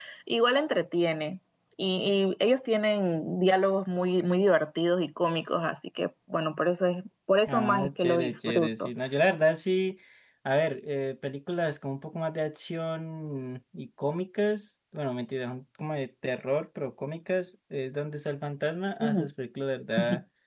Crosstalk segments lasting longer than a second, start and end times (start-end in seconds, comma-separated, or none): 7.5-8.9